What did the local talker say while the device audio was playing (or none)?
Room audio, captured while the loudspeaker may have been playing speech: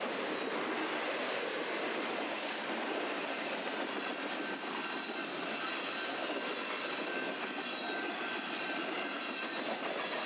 none